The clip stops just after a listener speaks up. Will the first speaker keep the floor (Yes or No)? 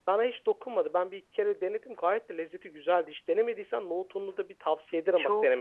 No